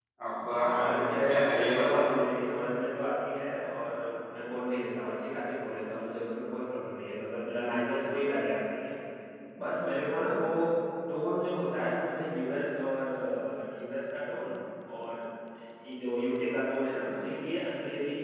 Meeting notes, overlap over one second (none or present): present